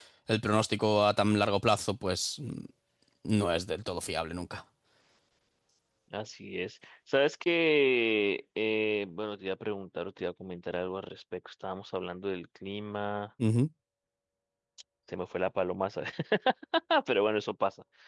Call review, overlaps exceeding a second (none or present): none